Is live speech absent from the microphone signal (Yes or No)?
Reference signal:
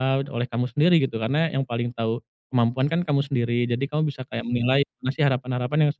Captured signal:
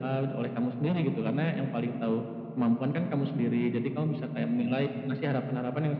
Yes